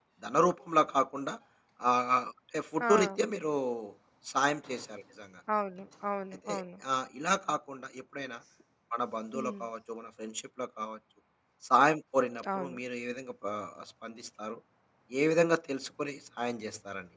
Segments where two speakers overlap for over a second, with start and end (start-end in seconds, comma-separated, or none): none